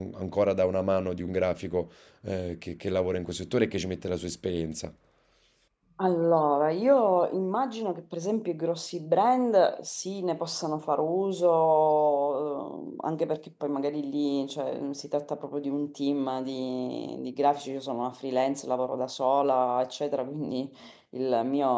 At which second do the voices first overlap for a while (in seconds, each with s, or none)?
none